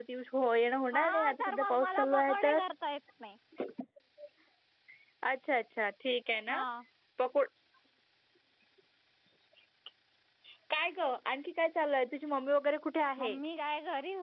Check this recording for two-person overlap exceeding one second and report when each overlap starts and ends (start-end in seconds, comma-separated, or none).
0.9-2.3